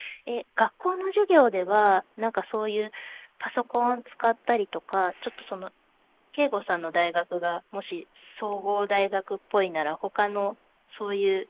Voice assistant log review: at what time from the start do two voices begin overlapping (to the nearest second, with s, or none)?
none